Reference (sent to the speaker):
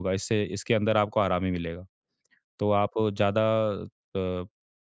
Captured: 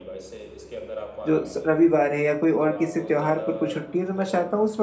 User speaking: Yes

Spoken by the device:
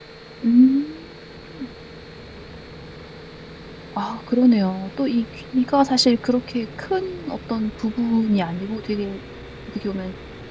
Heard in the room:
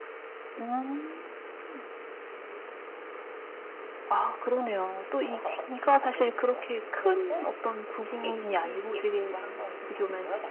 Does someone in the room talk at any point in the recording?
Yes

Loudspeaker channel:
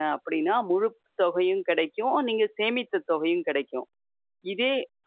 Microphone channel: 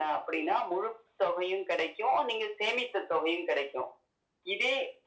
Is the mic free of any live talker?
Yes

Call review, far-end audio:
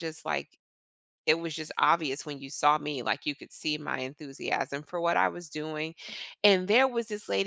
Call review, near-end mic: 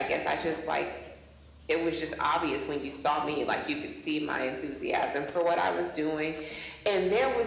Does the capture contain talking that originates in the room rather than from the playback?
No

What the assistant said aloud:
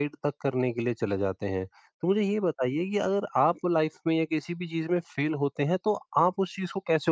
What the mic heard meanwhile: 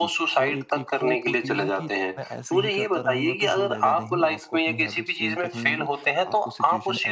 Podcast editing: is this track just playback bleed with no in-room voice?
No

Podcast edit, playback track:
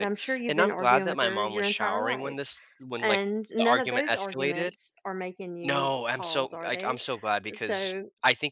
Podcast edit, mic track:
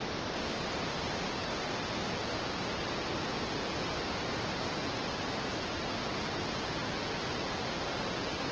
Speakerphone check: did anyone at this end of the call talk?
No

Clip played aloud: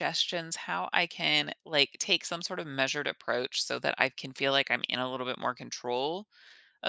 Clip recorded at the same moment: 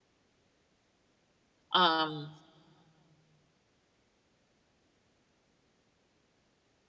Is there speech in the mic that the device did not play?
Yes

